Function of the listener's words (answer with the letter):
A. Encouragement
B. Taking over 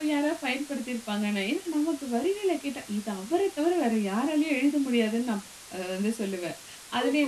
B